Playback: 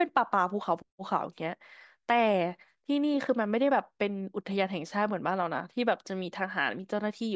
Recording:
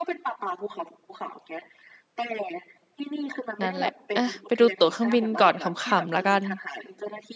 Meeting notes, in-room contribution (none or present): present